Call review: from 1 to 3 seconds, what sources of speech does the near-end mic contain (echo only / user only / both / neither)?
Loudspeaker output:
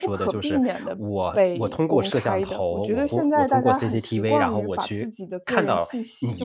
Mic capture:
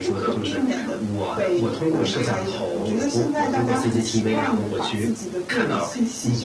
echo only